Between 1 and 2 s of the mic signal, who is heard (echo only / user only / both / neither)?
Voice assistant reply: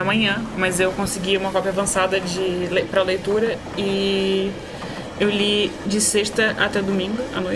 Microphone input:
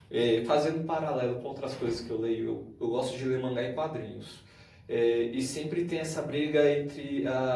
user only